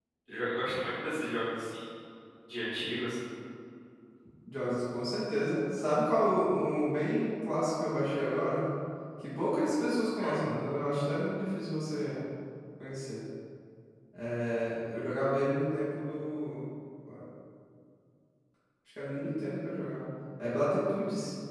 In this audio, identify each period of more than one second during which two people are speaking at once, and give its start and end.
none

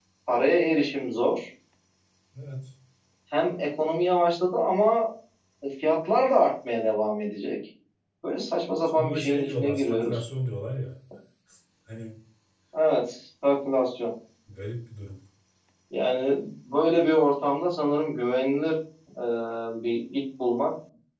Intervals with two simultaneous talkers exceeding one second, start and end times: 8.9-10.2

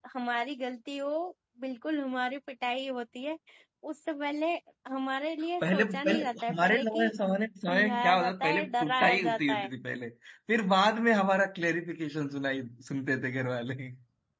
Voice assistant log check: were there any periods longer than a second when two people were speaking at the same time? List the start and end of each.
5.6-7.1, 7.7-9.7

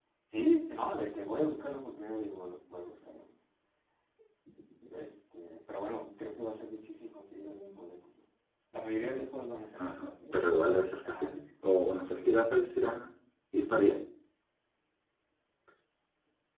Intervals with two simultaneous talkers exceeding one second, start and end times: 9.8-12.0

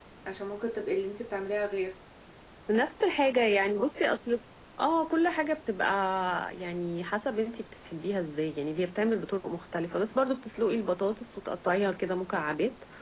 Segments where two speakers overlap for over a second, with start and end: none

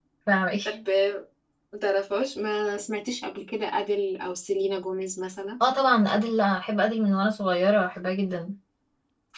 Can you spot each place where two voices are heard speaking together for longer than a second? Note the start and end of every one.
none

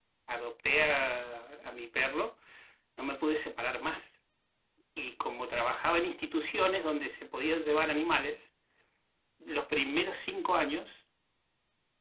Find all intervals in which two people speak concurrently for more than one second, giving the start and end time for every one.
none

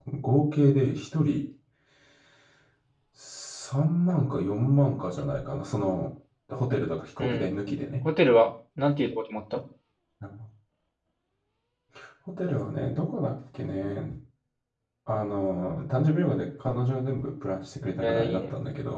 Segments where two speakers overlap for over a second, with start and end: none

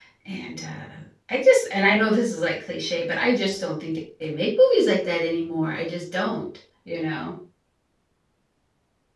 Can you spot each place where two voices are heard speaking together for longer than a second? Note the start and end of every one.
none

